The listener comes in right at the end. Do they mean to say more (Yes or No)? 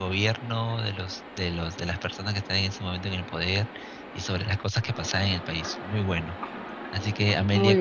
No